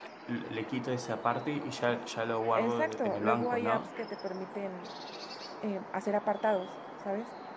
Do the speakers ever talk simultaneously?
Yes, from 2.5 s

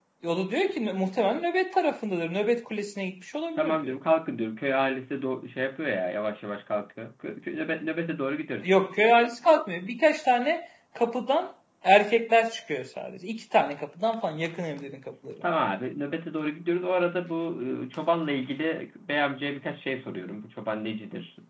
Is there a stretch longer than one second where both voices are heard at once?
No

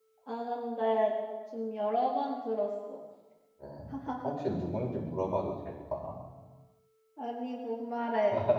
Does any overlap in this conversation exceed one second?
No

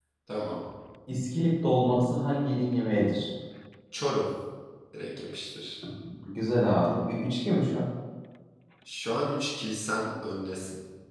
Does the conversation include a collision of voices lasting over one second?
No

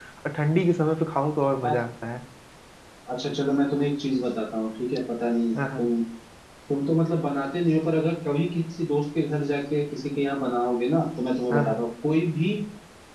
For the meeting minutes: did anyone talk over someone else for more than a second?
No

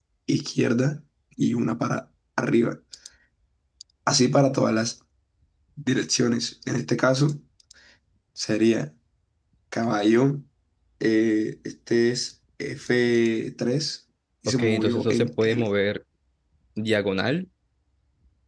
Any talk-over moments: Yes, from 14.5 s

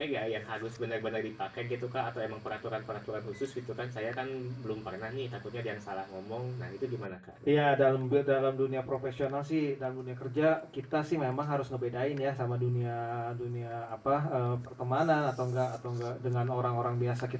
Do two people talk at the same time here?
No

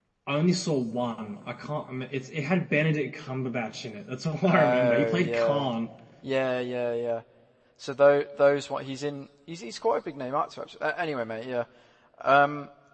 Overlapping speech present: Yes, from 4.4 s

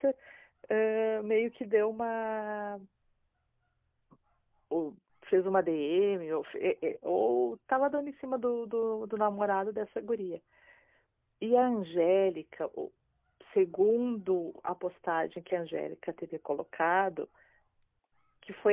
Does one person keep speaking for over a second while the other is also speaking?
No

